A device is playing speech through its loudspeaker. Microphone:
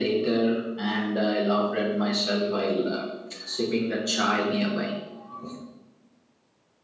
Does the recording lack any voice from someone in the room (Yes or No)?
Yes